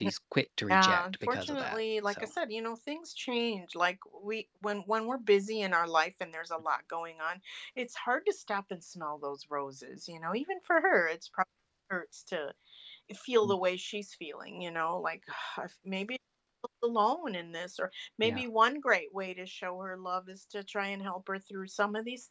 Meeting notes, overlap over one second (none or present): present